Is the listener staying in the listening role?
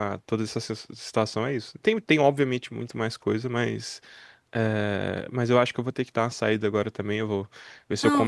Yes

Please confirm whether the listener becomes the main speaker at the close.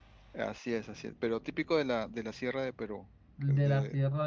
Yes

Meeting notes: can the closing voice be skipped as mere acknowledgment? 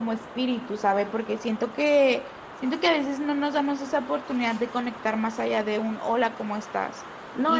No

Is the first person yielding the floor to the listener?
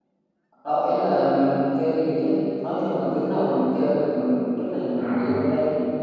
No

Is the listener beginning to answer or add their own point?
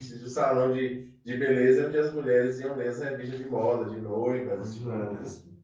Yes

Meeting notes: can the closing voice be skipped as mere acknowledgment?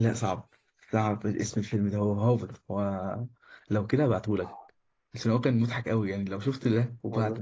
No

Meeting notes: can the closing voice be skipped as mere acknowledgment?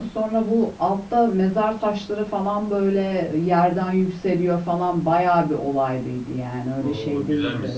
No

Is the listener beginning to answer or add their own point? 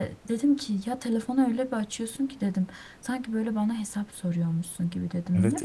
Yes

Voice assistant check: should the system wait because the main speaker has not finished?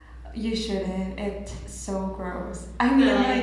Yes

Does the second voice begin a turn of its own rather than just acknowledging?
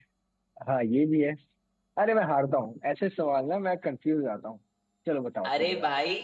Yes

